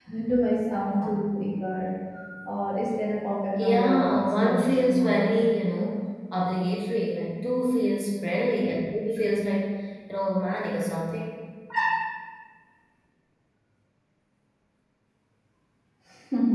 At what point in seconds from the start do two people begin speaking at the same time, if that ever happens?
3.6 s

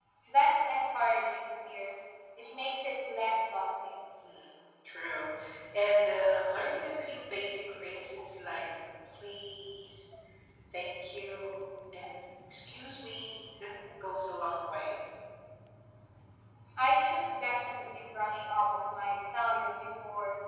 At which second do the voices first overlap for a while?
none

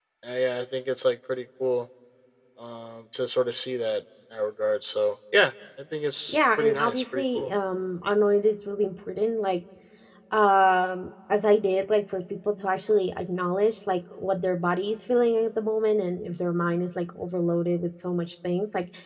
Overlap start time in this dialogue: 6.3 s

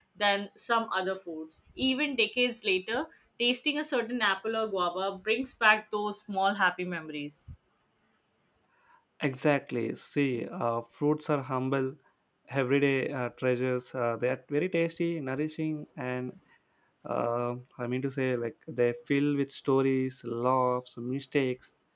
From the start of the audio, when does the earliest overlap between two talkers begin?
none

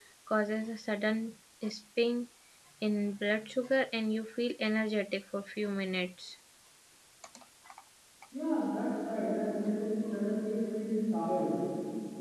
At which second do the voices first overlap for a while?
none

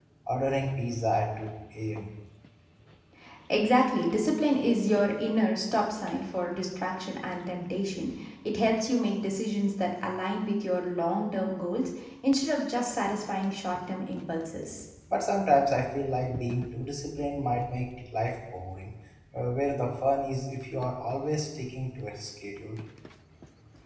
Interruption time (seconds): none

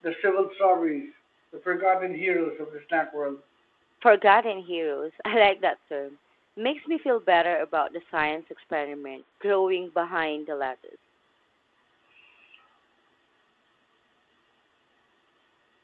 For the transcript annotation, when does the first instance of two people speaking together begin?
none

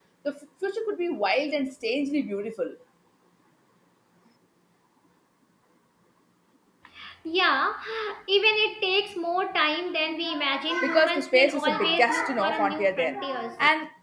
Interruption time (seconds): 10.8 s

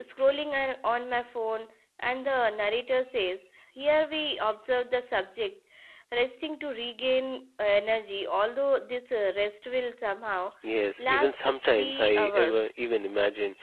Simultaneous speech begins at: 11.1 s

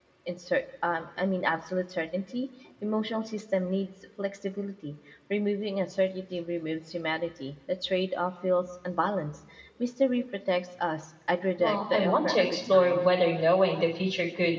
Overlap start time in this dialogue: 11.6 s

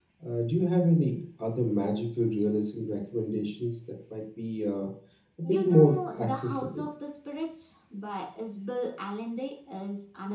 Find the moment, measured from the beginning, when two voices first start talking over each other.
5.4 s

